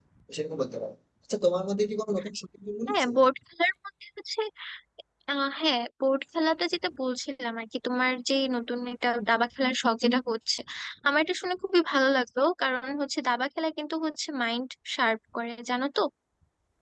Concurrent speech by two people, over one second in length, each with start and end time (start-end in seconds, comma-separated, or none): none